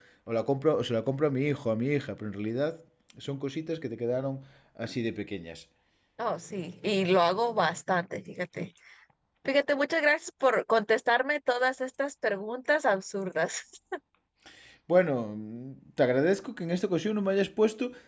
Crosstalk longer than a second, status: none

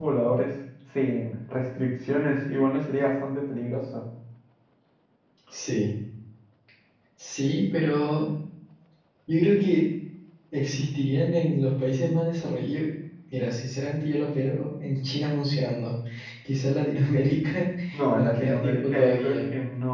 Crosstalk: present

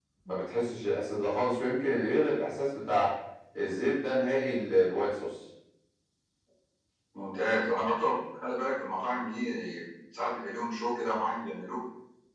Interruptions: none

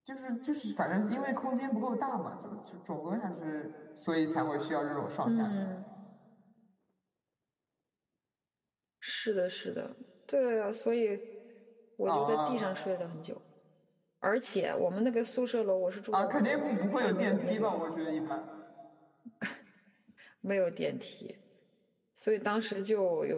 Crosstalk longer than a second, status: present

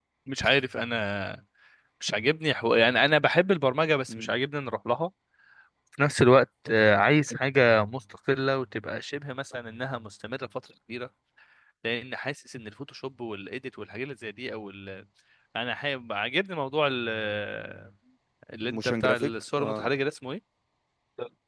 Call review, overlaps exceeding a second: present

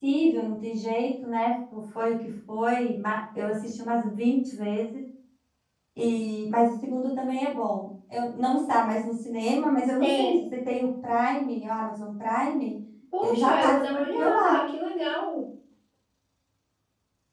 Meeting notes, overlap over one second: present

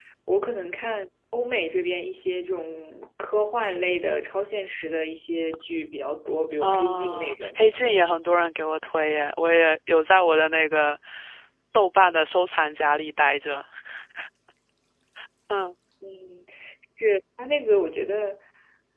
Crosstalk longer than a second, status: present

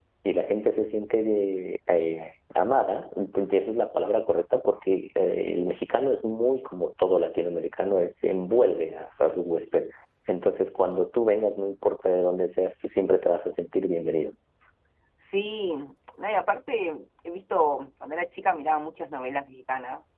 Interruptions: none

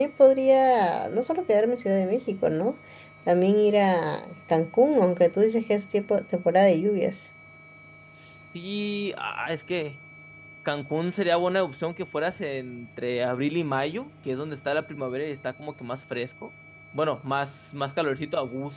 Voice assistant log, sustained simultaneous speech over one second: none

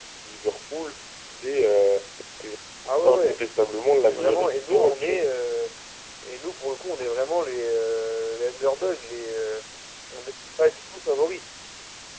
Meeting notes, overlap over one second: present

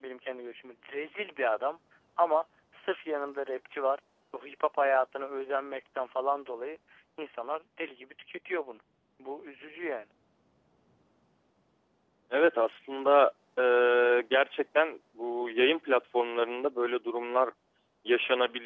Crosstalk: none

